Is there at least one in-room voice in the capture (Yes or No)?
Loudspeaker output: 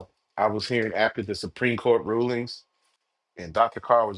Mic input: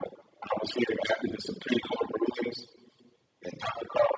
No